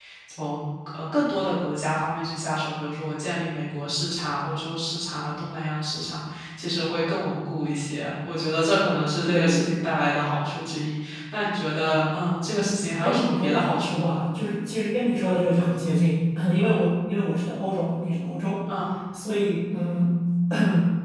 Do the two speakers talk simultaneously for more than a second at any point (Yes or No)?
Yes